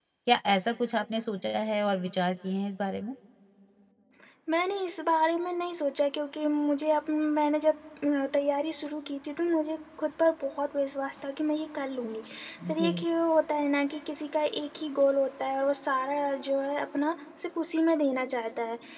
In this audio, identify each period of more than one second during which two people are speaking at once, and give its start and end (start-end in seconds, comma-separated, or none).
none